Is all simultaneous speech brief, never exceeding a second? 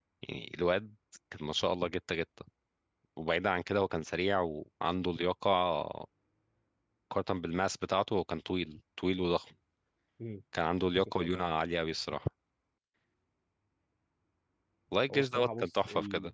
No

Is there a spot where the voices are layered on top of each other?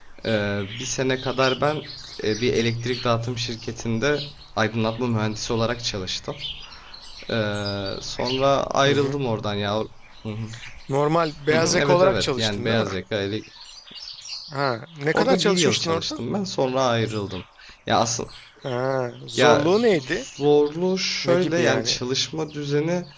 Yes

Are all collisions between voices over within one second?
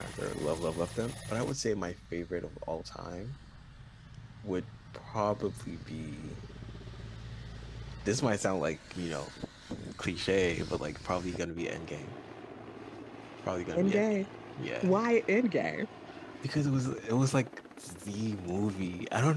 Yes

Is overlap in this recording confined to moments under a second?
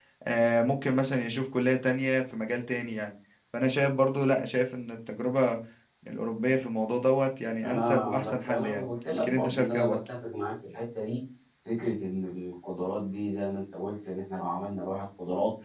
No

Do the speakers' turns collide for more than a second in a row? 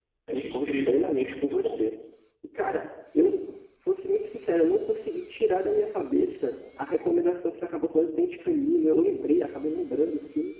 Yes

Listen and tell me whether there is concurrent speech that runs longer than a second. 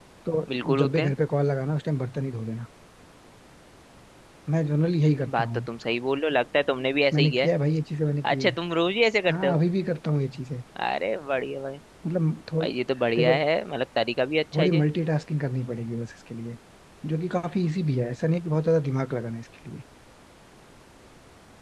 No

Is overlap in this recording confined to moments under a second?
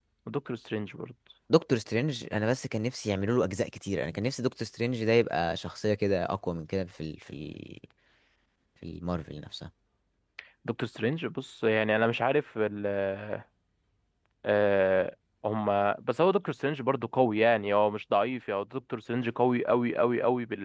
Yes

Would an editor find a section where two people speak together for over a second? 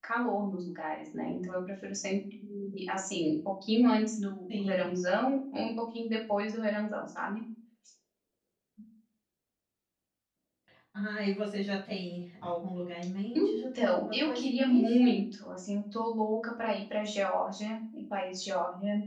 Yes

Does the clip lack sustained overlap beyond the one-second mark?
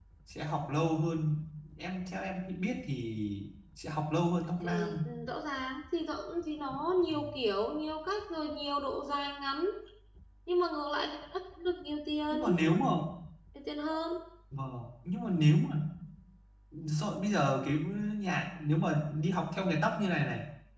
Yes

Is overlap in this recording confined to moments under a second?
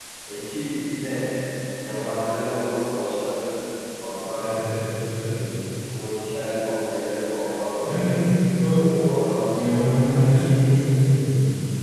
Yes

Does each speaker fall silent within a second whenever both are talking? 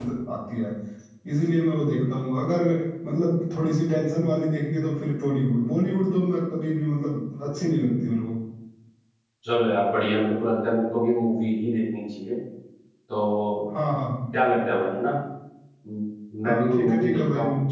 No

